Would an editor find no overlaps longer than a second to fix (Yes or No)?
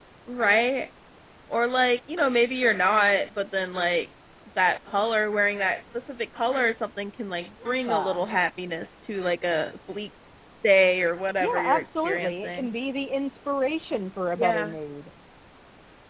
No